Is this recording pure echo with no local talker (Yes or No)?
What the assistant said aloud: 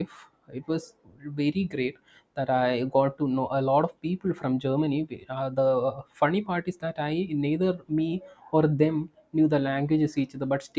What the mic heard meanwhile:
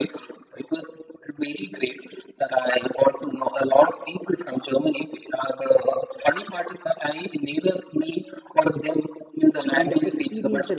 No